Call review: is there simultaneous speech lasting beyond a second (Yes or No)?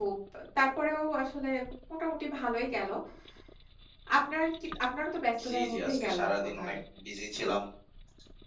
Yes